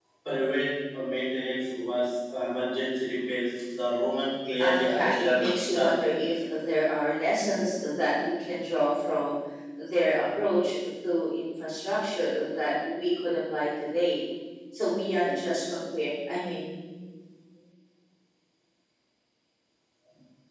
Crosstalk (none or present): present